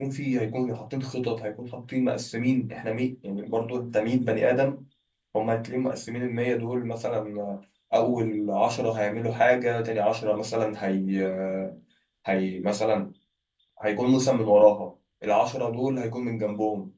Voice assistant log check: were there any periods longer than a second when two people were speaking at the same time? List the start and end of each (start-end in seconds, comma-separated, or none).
none